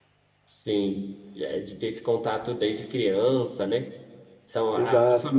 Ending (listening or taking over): listening